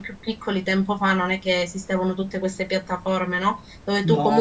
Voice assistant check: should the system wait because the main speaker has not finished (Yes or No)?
Yes